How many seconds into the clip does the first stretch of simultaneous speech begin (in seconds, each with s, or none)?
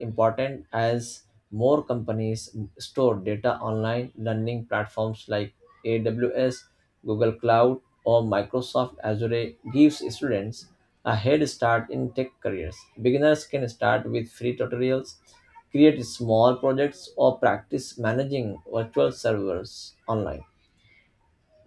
none